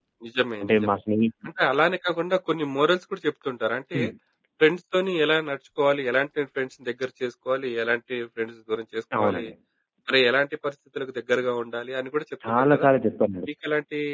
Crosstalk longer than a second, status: none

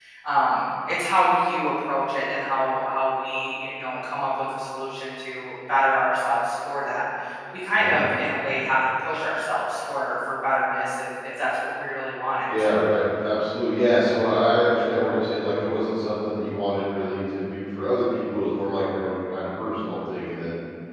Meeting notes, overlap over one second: none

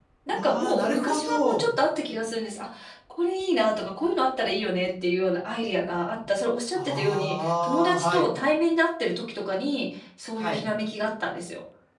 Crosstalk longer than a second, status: present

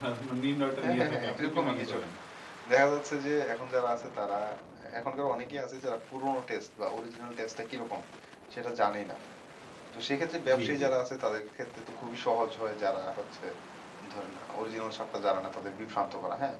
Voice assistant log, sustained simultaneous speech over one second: present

